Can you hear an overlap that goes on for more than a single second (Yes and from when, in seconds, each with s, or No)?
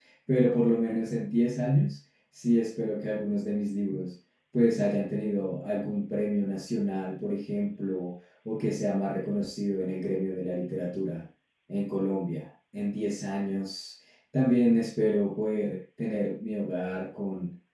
No